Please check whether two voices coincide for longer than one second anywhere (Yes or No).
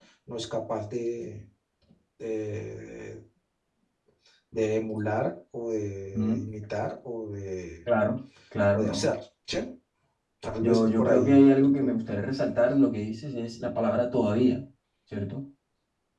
Yes